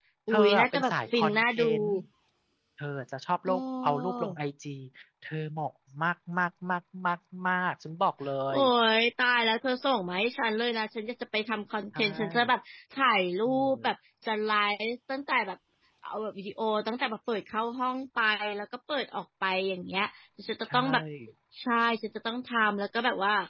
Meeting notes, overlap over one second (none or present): present